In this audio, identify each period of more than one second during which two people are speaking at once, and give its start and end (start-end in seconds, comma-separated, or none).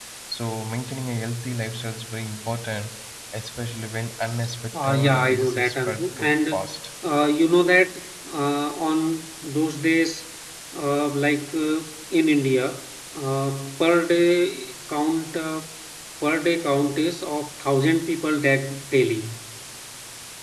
4.7-6.7